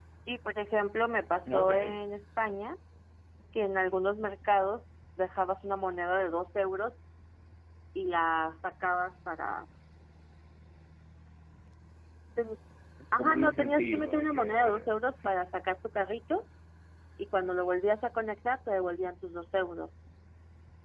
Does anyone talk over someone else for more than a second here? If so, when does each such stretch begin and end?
13.2-15.3

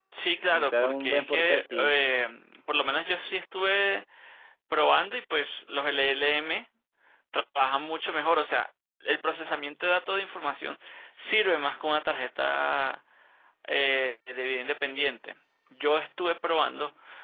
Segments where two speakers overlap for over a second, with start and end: 0.5-1.9

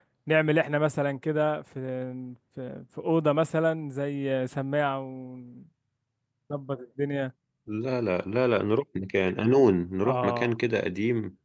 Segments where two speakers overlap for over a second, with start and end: none

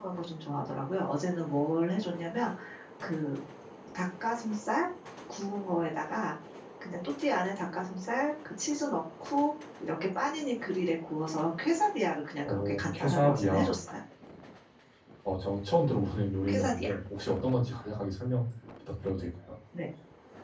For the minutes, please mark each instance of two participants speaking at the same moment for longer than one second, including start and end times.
12.4-13.7

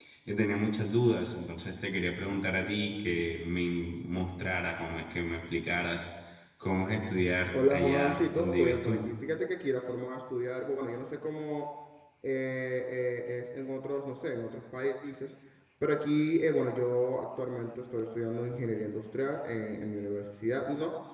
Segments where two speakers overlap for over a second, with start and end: 7.5-9.0

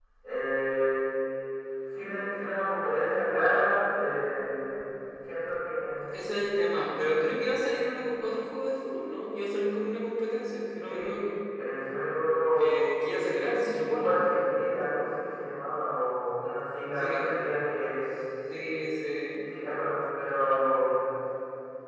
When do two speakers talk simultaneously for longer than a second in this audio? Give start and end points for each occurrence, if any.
none

